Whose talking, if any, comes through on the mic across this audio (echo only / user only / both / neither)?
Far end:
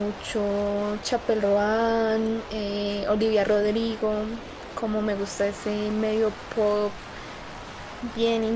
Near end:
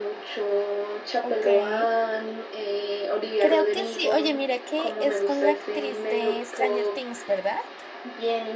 both